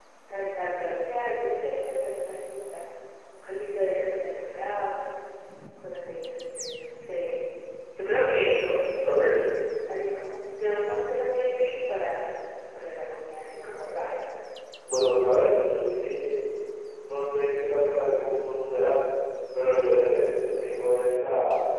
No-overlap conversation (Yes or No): Yes